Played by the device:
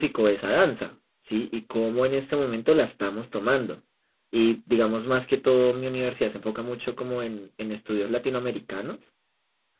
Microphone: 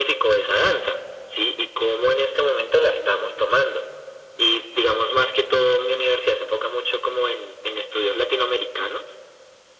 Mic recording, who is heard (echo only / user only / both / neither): echo only